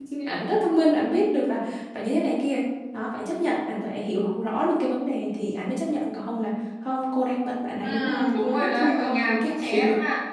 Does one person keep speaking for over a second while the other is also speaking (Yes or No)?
Yes